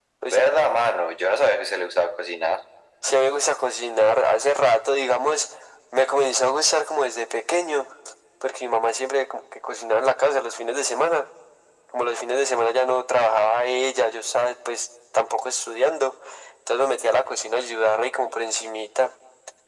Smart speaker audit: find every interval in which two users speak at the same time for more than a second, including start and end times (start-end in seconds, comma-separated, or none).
none